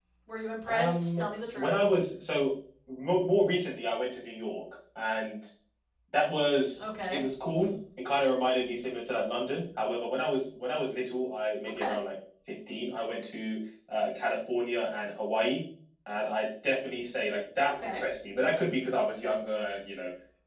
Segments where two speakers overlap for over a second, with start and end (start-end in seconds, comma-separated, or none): 0.7-2.0